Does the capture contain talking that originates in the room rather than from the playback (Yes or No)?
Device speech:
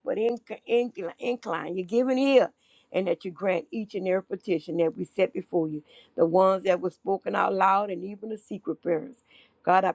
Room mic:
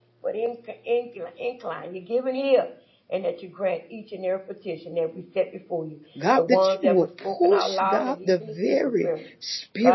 Yes